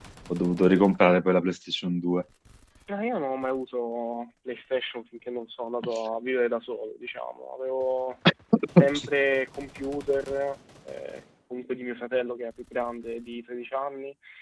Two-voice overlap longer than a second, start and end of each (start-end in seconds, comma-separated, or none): none